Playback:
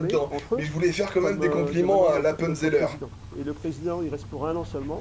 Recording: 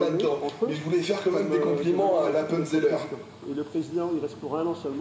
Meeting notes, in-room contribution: none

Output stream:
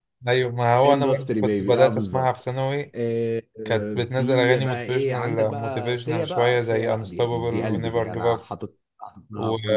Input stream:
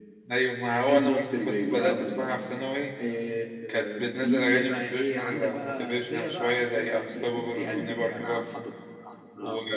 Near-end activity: none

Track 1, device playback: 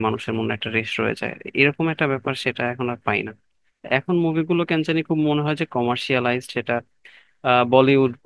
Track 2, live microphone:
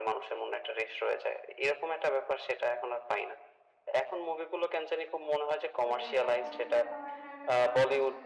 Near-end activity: present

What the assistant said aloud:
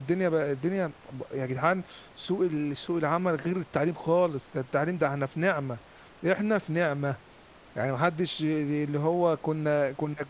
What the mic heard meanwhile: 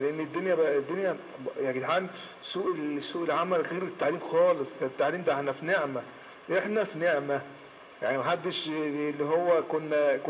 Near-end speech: none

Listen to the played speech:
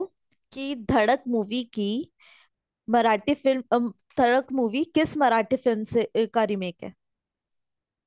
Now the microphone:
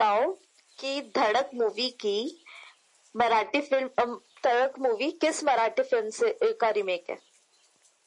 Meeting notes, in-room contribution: none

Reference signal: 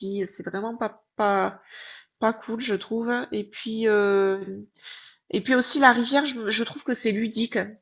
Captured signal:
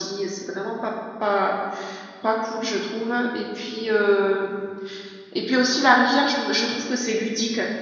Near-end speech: none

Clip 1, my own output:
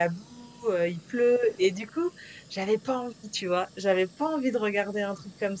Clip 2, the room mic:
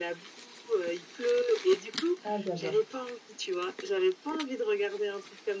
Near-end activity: present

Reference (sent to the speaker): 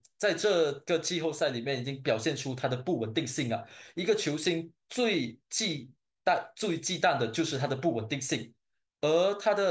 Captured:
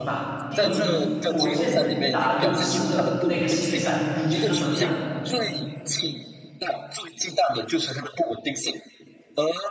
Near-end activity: present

